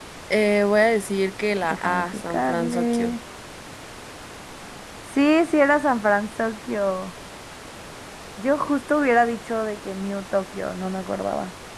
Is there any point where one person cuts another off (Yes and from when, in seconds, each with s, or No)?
Yes, from 1.6 s